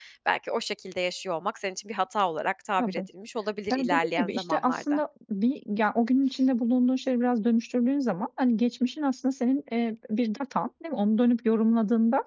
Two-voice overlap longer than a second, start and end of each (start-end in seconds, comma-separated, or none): 3.7-5.0